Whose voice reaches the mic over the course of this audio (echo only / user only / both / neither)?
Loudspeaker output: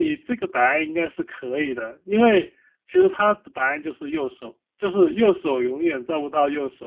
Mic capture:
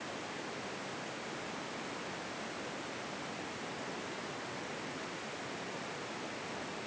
neither